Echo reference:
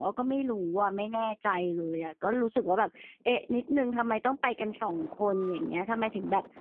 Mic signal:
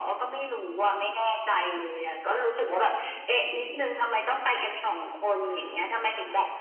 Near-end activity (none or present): none